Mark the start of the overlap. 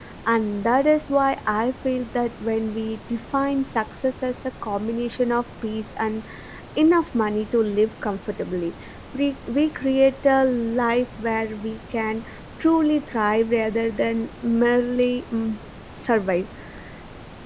none

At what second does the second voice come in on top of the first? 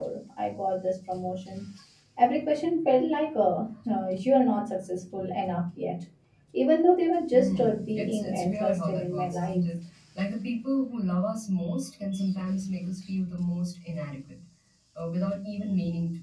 7 s

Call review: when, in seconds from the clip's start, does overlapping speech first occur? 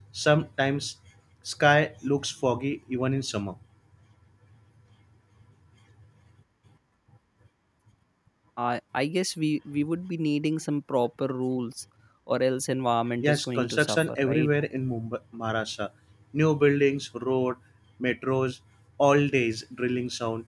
13 s

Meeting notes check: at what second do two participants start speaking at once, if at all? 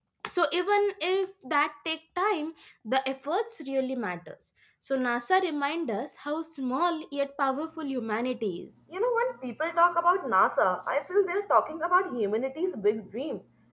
none

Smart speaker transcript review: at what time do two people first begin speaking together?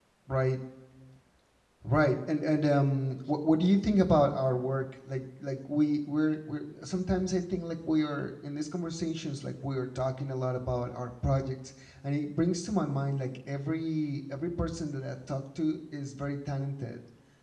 none

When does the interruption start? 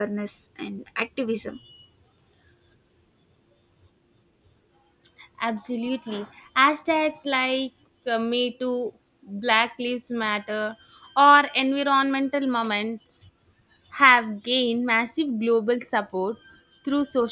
none

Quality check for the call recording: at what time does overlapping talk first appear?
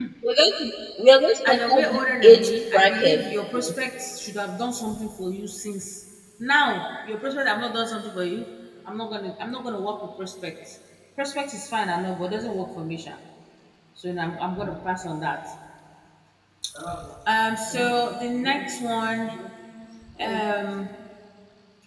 1 s

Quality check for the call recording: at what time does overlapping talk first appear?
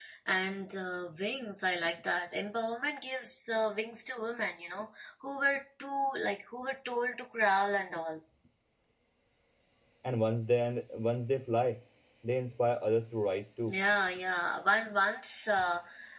none

